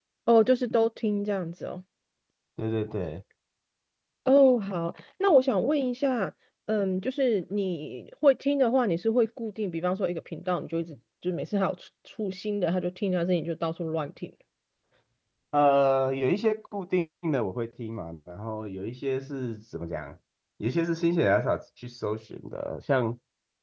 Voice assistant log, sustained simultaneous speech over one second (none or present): none